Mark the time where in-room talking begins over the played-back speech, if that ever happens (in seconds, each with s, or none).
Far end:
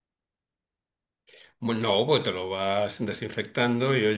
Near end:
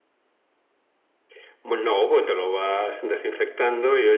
none